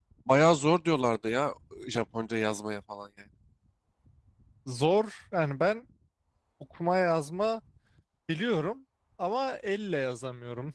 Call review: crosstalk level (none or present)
none